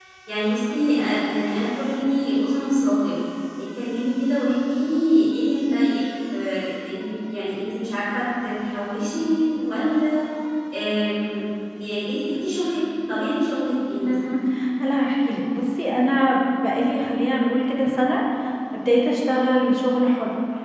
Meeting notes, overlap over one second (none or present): none